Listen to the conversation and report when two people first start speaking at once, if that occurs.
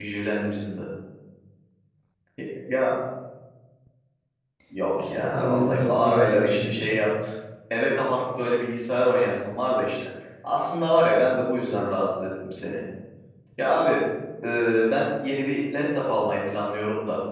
5.0 s

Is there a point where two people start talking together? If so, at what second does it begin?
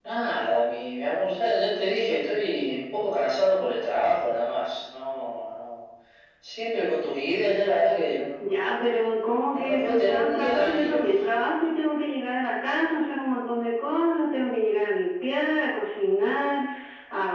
9.5 s

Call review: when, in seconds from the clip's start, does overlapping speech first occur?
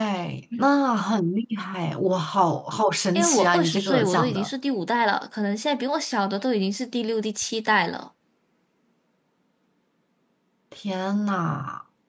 3.1 s

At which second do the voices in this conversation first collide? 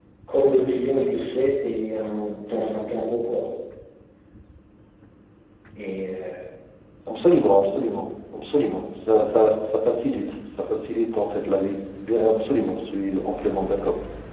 none

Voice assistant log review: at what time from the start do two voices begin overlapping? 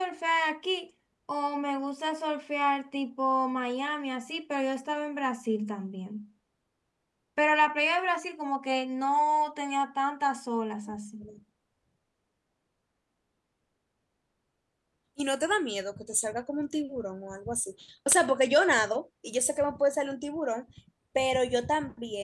none

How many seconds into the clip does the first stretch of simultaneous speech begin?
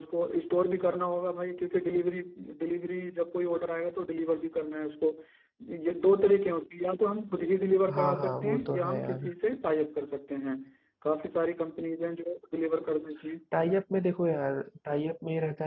7.9 s

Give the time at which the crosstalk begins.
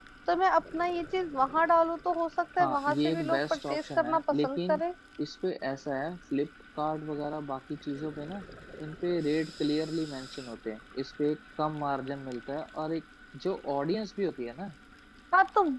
2.6 s

